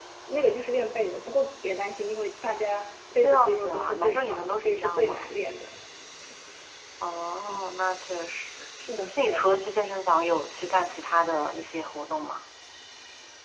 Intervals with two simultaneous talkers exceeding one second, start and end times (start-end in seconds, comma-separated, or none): 3.2-5.3